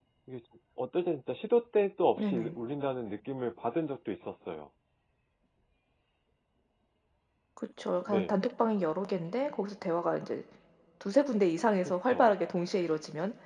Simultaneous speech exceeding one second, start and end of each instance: none

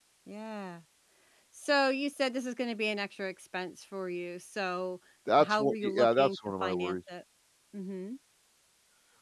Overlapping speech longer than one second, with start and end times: 5.4-7.0

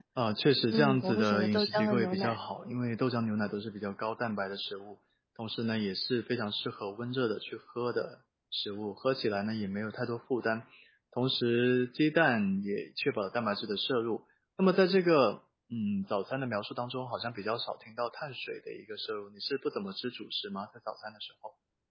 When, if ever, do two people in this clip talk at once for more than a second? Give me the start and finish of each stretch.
0.7-2.4

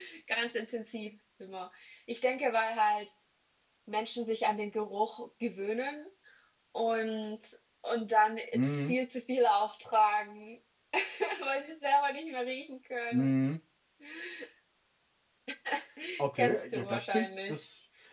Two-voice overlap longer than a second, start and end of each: 16.4-17.6

